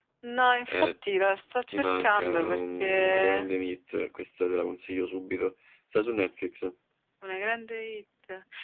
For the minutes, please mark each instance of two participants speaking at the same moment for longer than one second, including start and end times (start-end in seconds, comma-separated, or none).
1.7-3.5